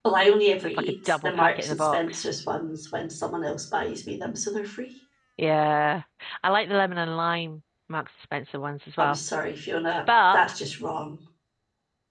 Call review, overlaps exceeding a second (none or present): present